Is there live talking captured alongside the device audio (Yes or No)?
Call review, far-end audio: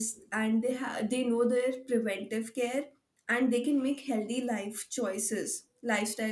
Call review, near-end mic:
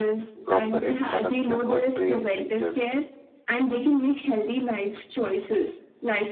Yes